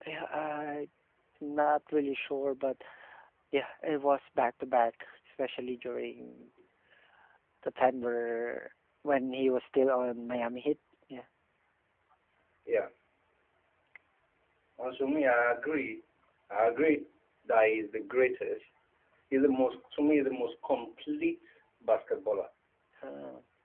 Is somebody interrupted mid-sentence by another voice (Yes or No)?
No